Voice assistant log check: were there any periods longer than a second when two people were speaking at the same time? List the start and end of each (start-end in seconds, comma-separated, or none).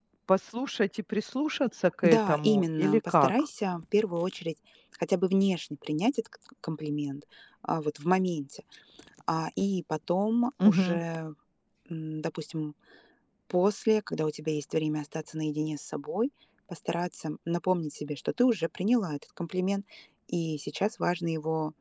2.0-3.3